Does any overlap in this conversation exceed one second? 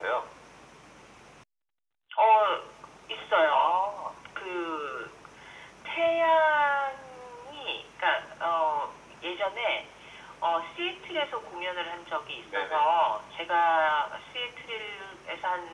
No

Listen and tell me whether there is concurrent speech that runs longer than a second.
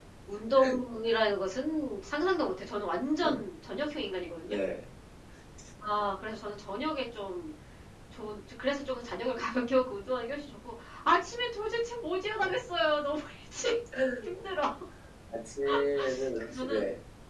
No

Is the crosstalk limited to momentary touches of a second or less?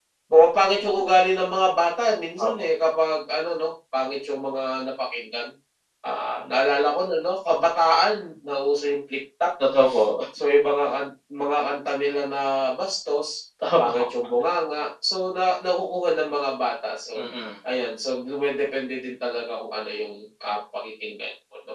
Yes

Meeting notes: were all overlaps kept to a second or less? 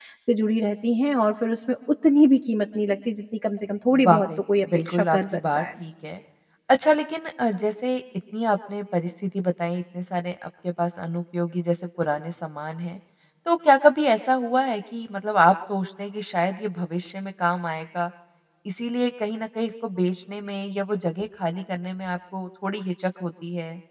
No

